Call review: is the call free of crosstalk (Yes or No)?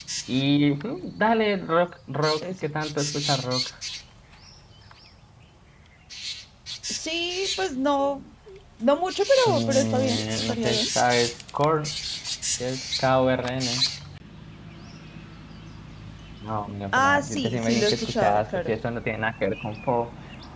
No